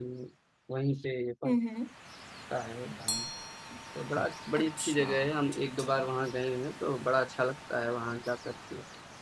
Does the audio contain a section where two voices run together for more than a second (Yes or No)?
Yes